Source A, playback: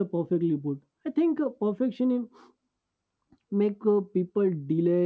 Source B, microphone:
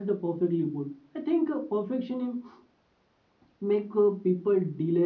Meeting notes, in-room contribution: none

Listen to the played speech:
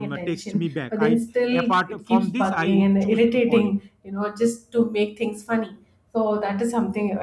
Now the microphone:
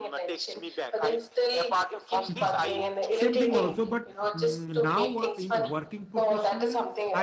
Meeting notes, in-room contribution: present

